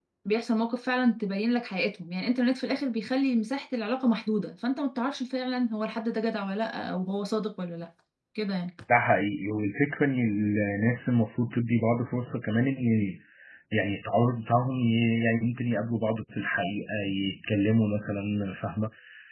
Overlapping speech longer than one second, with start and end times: none

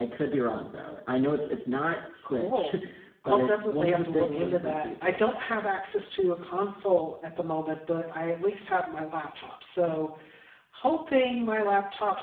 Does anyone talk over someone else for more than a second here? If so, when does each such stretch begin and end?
3.2-5.3

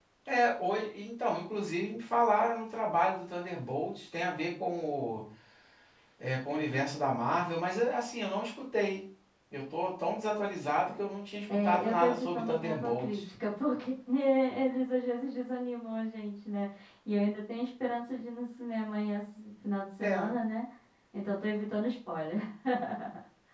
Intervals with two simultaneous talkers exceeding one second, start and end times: 11.5-13.2

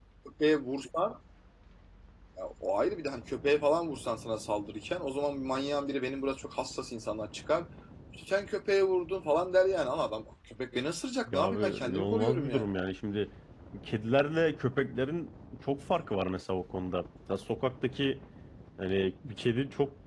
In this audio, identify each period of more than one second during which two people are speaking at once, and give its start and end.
11.3-12.7

